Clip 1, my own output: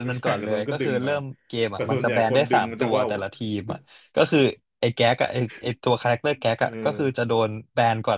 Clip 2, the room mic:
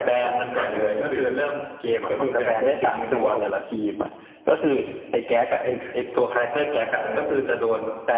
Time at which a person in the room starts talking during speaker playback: none

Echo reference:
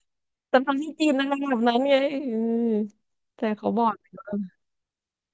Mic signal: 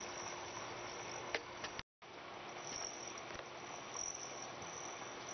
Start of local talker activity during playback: none

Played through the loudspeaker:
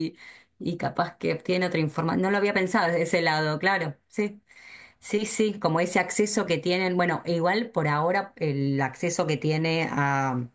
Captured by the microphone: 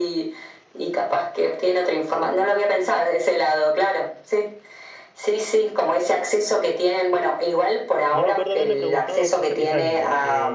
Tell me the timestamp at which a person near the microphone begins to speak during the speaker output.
8.1 s

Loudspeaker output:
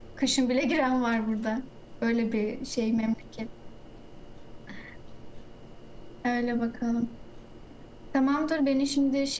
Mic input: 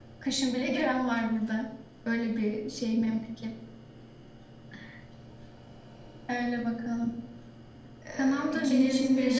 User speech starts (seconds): 8.1 s

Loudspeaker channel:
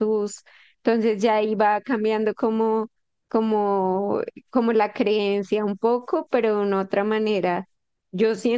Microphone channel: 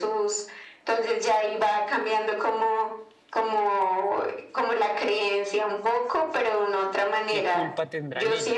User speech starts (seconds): 7.3 s

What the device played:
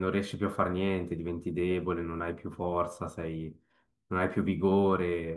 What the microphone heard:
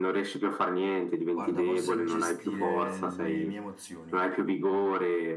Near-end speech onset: 1.3 s

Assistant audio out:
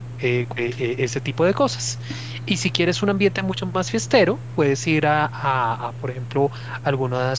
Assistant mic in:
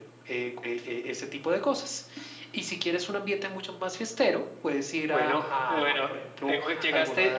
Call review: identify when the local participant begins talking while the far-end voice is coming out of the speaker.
5.1 s

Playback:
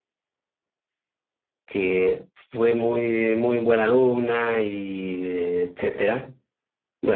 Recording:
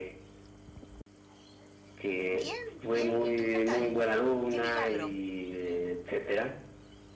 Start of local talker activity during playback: 2.3 s

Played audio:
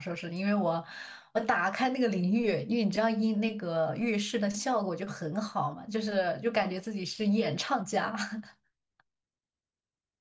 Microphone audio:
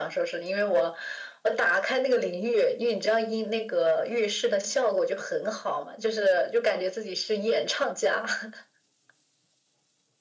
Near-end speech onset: none

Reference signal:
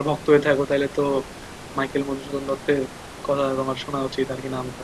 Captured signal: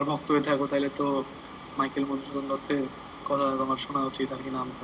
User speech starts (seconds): none

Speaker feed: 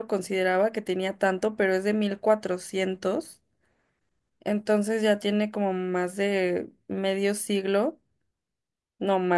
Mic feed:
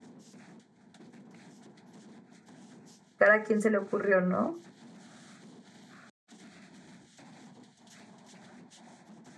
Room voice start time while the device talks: 3.2 s

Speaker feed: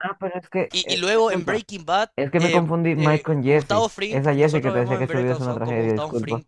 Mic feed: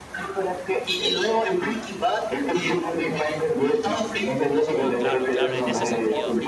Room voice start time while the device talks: 4.7 s

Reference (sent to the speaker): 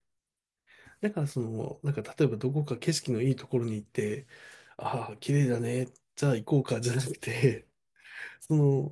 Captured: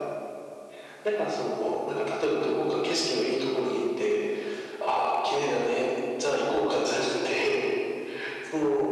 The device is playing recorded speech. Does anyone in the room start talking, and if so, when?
none

